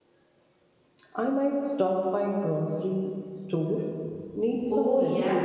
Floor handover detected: Yes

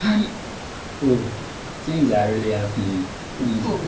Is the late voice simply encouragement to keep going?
No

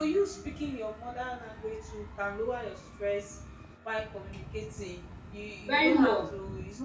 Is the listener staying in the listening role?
Yes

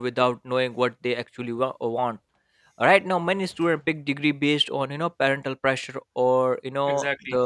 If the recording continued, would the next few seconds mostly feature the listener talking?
No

